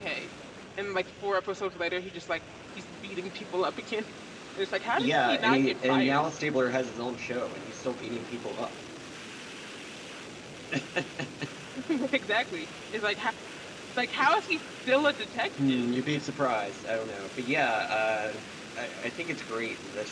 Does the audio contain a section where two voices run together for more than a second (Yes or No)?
Yes